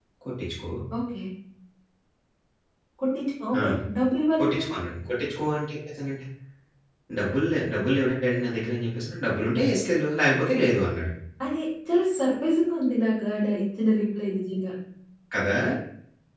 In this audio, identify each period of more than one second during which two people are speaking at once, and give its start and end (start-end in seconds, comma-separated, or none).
none